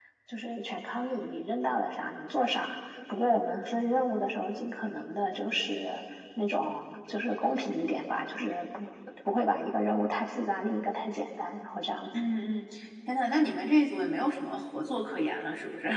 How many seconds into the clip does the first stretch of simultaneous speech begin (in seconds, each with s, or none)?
none